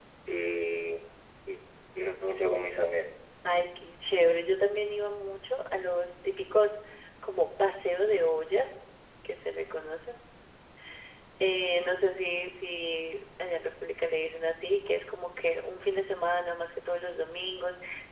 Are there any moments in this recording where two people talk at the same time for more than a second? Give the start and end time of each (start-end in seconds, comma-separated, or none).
none